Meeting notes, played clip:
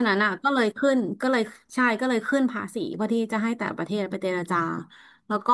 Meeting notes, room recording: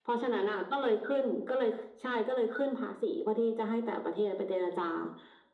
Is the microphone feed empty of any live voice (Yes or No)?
Yes